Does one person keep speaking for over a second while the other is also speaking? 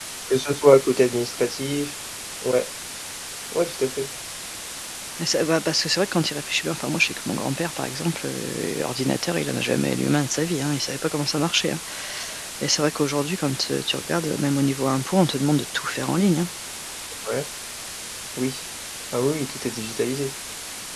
No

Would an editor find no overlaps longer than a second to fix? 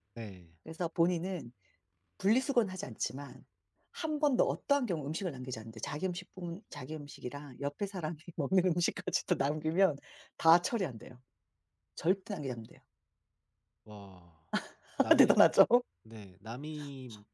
Yes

